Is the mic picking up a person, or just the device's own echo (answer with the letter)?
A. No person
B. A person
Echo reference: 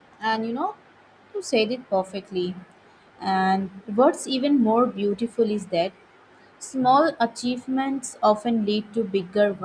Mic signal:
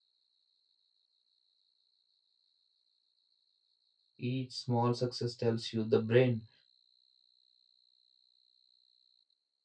B